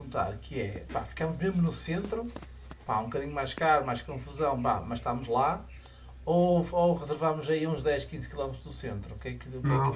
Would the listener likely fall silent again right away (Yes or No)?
No